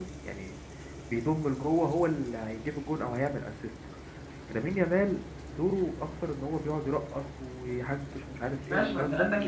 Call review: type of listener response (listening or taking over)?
taking over